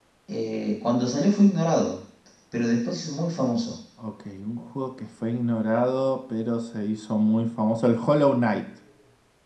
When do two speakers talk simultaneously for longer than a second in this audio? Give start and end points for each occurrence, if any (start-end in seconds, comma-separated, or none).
none